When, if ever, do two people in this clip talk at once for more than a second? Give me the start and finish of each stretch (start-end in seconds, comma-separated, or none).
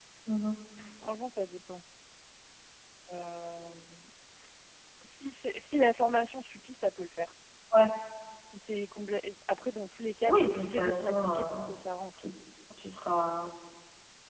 10.2-11.8